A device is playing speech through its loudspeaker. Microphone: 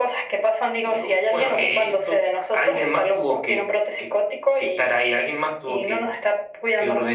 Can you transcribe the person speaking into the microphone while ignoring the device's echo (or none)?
none